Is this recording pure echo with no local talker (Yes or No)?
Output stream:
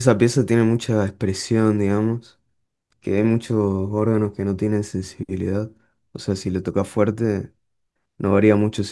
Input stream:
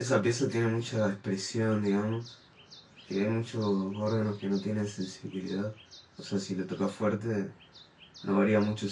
Yes